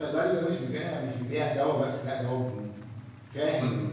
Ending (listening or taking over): taking over